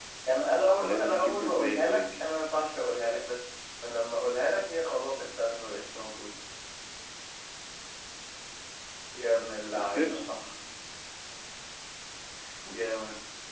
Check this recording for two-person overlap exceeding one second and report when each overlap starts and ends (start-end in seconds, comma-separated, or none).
0.8-2.0